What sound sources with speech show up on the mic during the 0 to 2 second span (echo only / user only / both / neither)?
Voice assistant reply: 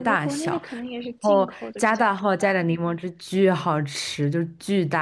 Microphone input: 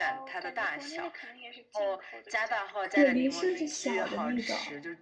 echo only